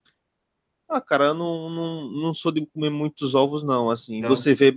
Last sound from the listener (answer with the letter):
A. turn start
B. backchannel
B